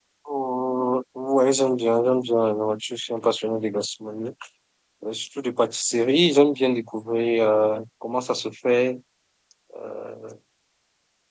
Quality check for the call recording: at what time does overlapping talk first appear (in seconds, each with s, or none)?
none